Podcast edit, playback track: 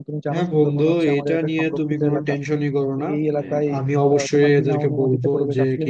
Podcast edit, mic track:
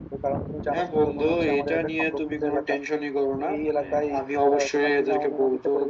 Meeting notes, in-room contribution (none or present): none